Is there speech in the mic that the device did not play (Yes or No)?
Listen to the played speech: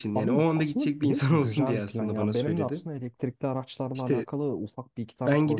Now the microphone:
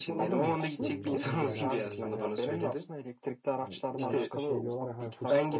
Yes